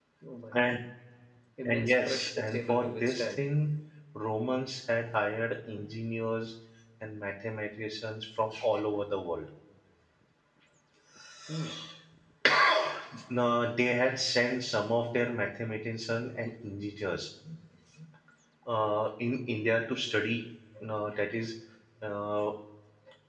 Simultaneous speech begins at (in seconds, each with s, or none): 1.6 s